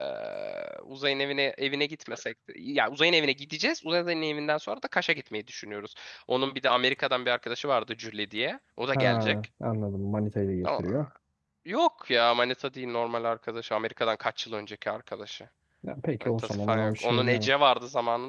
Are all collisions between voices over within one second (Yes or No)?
No